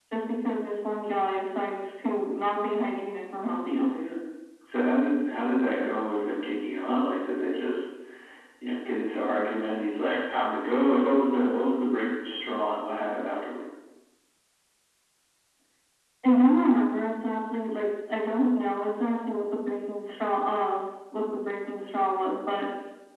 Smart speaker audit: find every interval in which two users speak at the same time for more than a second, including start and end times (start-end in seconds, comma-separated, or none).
none